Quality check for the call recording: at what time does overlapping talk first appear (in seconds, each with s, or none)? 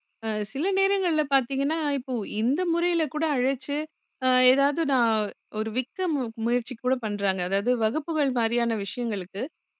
none